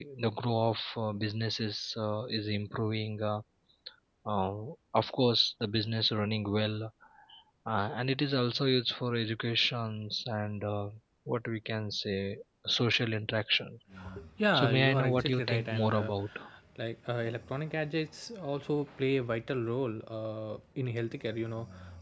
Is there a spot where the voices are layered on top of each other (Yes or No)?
Yes